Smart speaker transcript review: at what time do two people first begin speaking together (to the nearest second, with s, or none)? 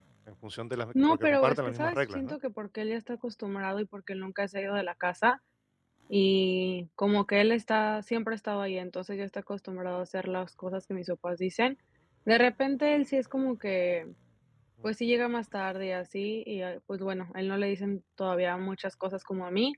1 s